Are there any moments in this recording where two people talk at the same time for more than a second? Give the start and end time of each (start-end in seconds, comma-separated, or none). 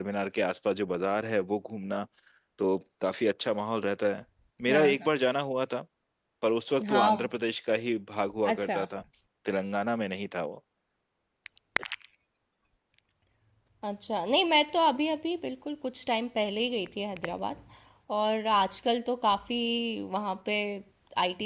none